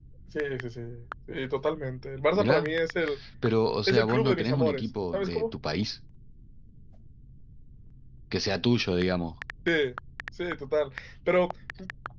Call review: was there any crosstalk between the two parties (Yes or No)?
Yes